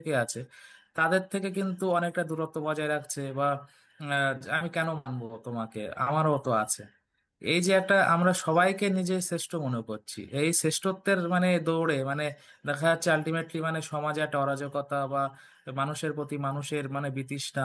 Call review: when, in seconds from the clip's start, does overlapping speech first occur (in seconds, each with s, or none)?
none